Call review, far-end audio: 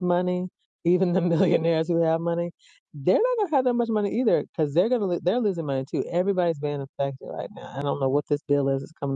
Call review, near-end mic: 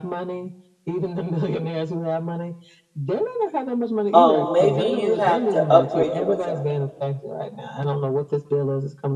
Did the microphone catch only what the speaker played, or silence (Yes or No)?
No